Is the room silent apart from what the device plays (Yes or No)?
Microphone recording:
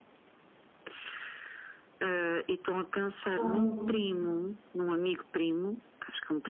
No